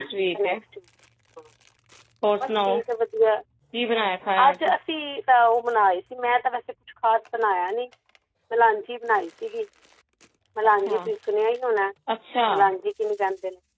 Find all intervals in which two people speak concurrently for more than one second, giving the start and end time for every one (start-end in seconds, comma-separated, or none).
none